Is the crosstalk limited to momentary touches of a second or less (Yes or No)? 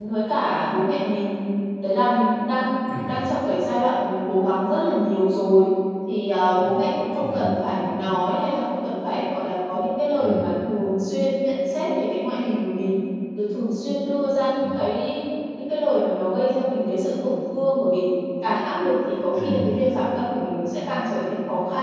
Yes